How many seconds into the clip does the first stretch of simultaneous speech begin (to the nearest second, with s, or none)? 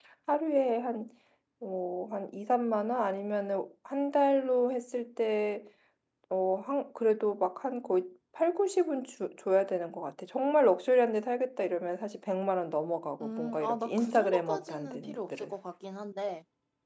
13 s